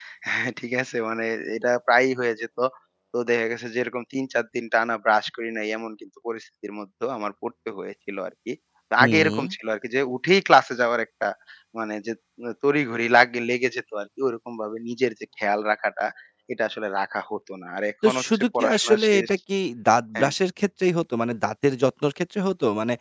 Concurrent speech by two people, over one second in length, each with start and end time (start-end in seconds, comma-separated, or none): 18.1-19.3